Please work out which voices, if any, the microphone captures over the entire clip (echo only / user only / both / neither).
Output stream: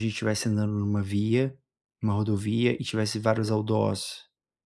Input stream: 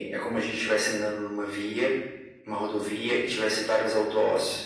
echo only